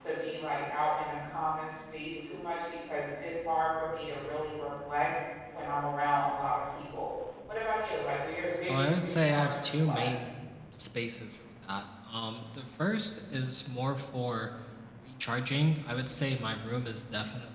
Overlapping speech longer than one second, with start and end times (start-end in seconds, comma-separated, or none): 8.7-10.1